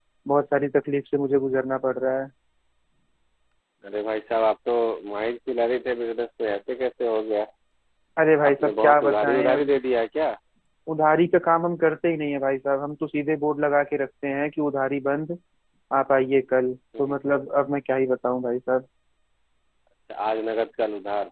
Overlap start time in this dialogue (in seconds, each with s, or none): 8.5 s